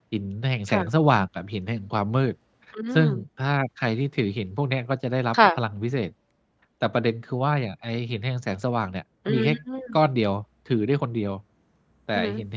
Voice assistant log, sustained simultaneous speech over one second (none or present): none